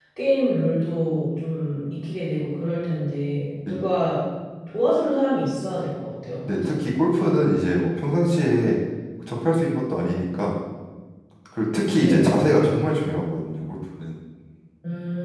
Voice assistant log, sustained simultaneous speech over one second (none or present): none